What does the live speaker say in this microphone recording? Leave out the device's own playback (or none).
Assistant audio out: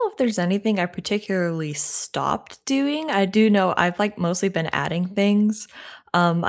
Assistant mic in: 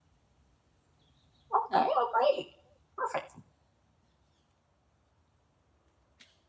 Okay, oh great. Perfect.